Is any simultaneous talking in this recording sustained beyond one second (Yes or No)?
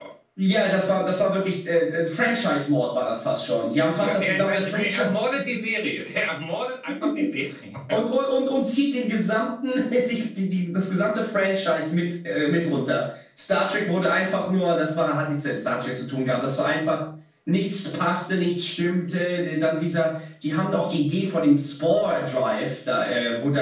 Yes